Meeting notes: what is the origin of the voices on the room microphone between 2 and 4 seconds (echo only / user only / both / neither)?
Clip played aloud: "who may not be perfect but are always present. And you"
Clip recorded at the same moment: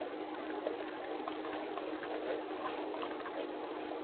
neither